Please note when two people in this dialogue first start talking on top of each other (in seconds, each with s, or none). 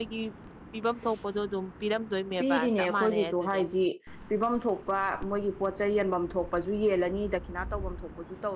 2.4 s